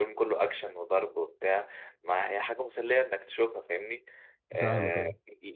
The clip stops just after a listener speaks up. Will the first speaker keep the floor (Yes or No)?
Yes